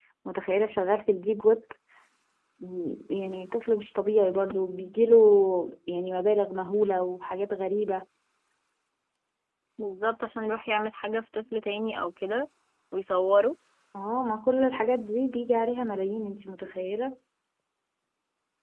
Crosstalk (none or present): none